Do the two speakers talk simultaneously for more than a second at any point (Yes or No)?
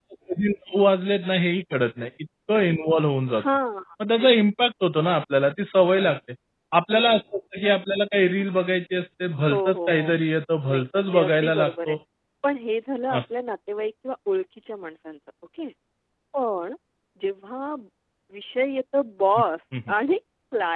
Yes